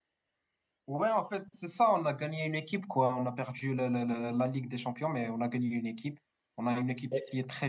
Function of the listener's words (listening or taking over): listening